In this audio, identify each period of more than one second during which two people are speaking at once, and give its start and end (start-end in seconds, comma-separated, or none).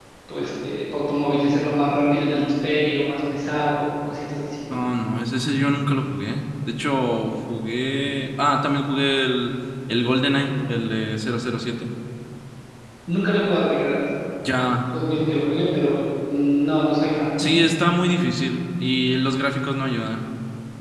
none